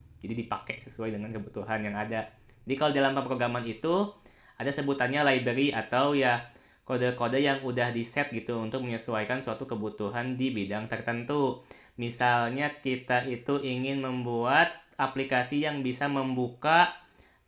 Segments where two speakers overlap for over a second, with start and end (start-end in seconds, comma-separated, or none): none